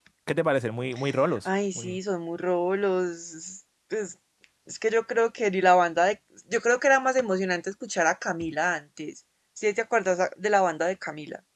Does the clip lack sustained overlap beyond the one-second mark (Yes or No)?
Yes